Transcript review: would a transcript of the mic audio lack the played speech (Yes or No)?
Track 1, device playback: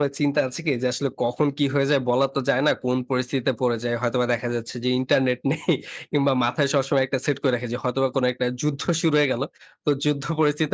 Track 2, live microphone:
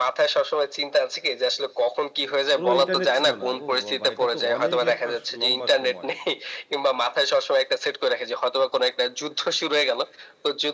No